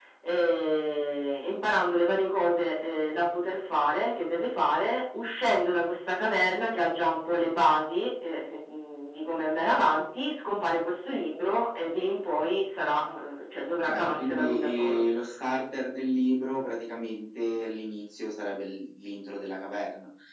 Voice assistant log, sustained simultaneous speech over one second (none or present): present